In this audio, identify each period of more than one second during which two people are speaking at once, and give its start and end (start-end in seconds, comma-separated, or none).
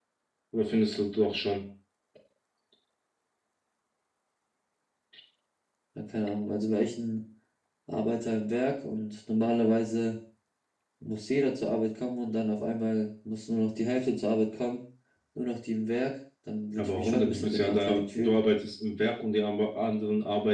16.8-18.4